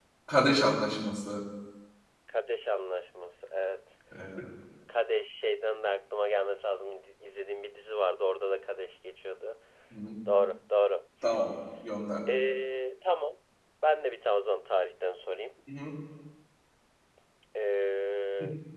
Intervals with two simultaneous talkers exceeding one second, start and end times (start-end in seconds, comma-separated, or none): none